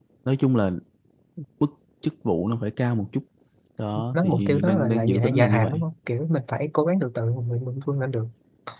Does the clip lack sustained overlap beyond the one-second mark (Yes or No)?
No